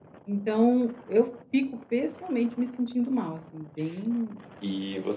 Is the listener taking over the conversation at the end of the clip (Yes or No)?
Yes